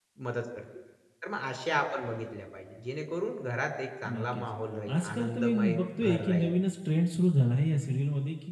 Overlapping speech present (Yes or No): Yes